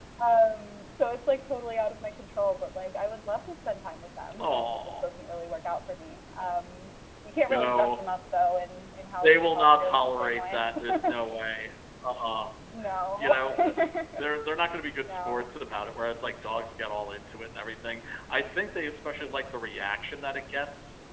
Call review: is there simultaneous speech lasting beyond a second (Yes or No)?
Yes